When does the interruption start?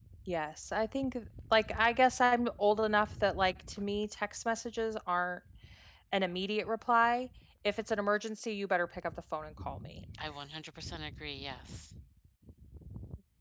none

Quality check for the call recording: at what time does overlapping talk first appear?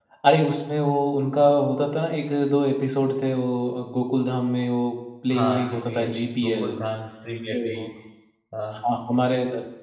5.3 s

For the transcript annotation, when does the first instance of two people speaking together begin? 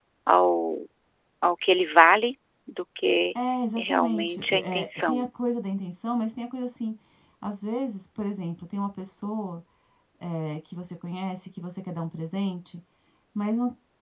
3.8 s

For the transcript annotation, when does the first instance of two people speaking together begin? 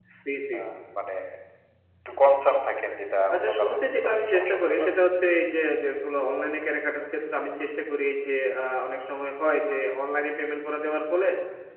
3.3 s

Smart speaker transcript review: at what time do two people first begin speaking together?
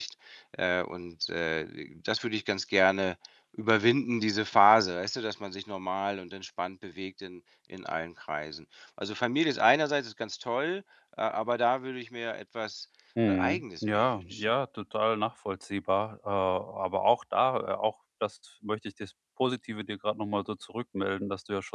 13.3 s

